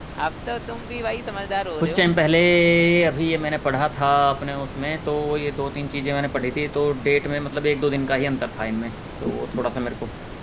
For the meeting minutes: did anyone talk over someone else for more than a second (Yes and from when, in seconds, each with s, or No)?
No